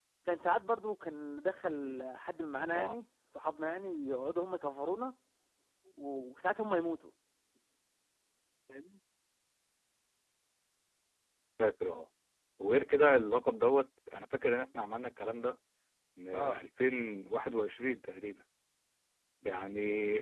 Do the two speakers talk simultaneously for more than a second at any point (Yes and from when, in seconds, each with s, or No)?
No